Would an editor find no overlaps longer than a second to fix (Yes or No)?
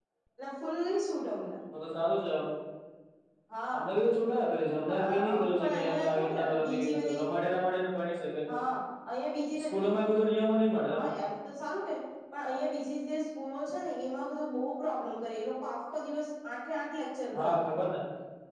No